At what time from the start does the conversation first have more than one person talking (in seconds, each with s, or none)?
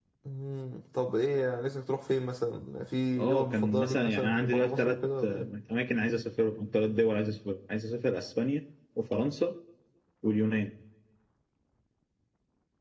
3.2 s